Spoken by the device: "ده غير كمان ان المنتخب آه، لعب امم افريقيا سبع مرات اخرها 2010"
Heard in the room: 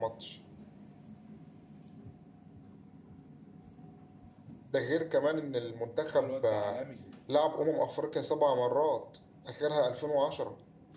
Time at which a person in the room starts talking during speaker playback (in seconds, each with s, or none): 6.1 s